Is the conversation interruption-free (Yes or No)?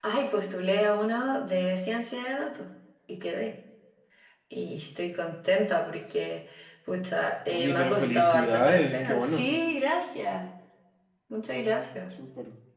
No